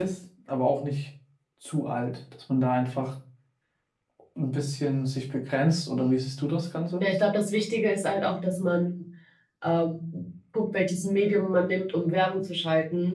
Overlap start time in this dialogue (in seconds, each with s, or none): none